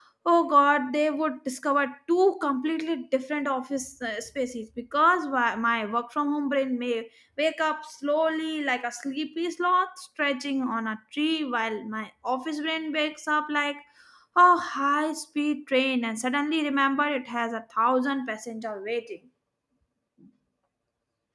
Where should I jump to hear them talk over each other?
none

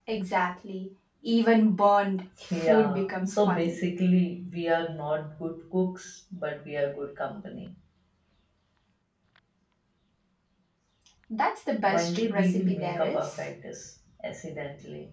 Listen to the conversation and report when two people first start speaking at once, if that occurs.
2.5 s

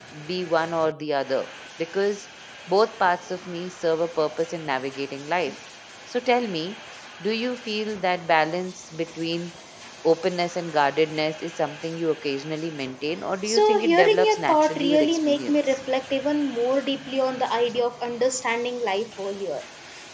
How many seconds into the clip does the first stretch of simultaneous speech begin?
13.4 s

